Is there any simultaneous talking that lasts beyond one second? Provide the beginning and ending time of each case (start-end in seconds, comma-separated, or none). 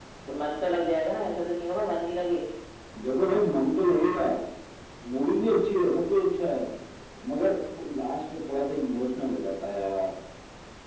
none